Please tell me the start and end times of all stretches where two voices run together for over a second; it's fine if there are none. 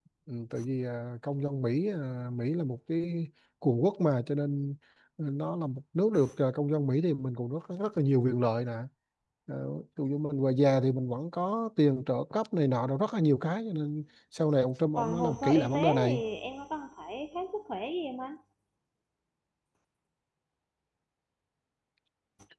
15.0-16.2

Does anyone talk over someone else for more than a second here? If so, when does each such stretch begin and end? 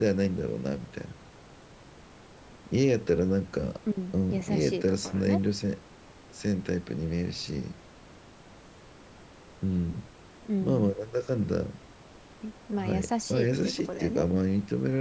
4.1-5.4, 12.8-14.3

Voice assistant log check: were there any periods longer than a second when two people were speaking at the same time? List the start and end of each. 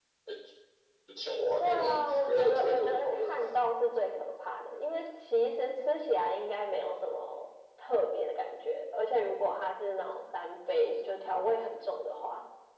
1.6-3.5

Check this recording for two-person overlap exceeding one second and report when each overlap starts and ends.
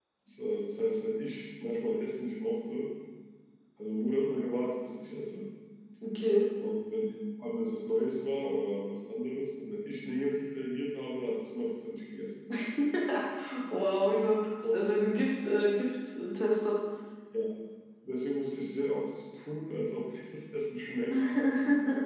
none

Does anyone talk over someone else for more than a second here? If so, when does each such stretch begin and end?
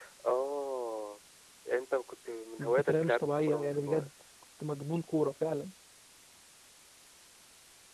2.6-4.1

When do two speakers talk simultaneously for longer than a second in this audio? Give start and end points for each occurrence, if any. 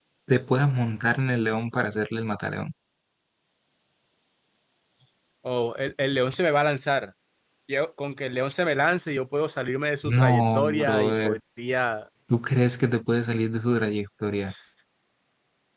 10.1-11.4

